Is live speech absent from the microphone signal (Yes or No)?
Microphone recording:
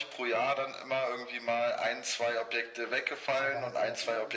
No